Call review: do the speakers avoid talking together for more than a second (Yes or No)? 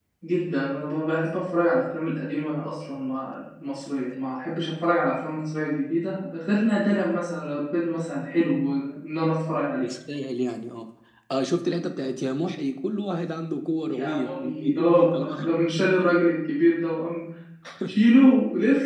No